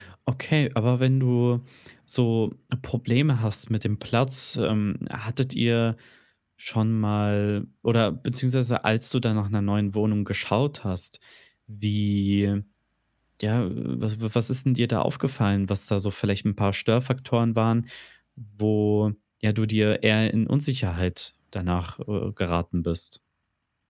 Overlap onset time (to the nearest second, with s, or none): none